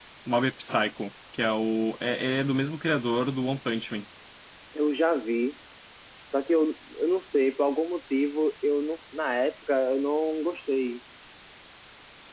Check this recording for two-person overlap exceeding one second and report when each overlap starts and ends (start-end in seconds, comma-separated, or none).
none